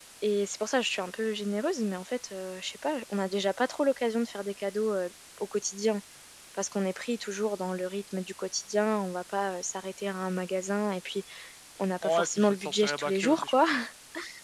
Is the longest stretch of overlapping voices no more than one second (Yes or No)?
No